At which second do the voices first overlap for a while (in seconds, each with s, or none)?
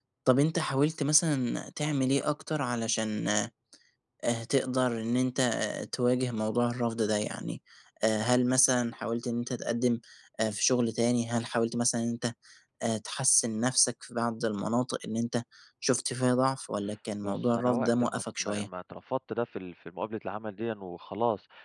17.2 s